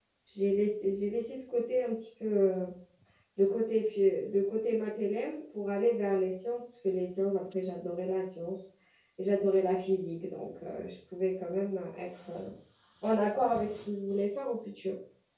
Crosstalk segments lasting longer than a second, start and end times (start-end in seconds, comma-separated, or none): none